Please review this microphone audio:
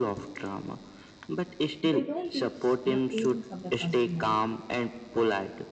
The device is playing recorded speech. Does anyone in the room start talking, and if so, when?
1.8 s

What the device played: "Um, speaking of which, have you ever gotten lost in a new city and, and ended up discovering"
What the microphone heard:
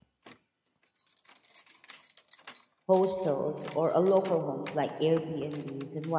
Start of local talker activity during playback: 2.9 s

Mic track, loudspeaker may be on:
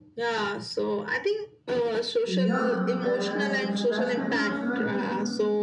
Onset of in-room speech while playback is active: 2.2 s

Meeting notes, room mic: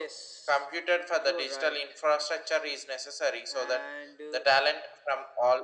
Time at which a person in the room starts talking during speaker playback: none

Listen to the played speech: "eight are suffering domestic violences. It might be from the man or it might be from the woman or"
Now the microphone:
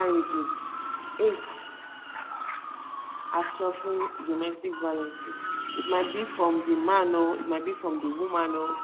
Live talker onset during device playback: none

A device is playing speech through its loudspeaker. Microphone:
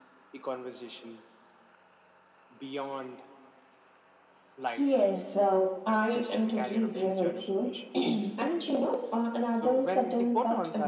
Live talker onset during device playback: none

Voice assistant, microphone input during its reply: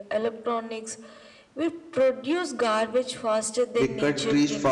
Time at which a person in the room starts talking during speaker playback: 3.7 s

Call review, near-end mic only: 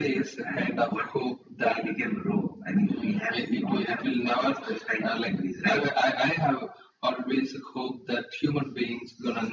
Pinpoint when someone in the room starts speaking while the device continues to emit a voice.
none

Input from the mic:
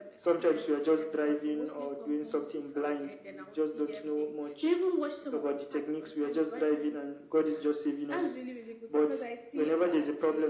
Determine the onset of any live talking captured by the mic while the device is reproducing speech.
none

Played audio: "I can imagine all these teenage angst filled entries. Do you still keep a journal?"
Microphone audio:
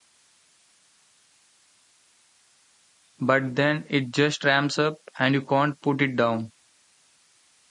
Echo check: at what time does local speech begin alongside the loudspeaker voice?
3.2 s

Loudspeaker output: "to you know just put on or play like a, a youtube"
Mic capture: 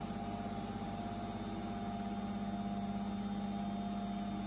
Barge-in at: none

